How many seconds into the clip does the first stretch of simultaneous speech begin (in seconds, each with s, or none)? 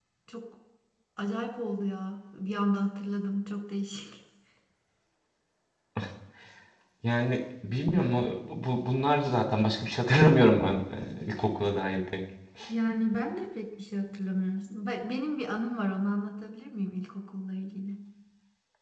none